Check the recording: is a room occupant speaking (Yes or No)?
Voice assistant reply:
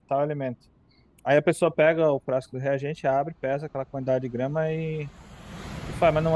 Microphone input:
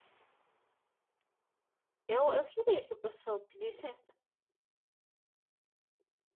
Yes